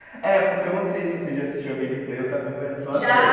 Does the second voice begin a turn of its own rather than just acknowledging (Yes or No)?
Yes